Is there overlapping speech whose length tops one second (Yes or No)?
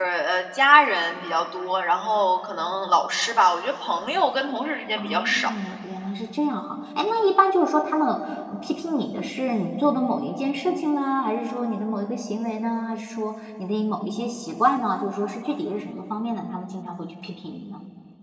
No